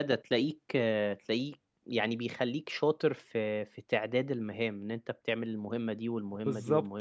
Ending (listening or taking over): taking over